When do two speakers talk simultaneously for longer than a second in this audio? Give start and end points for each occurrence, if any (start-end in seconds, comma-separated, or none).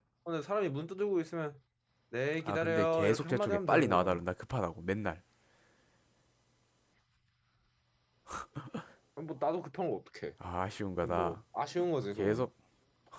2.4-4.2